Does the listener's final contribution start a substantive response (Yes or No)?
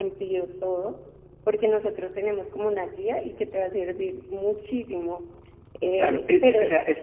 Yes